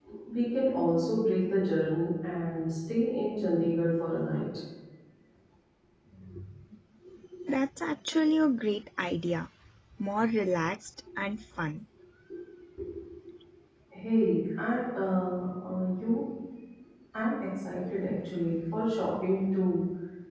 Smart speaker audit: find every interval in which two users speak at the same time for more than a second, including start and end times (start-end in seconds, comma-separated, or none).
none